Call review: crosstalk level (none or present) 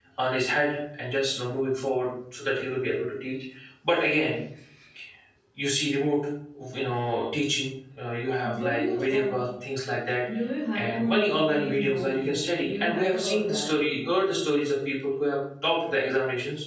present